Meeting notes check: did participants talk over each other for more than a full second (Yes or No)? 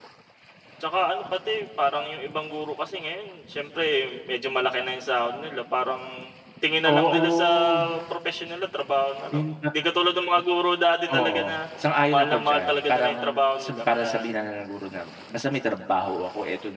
Yes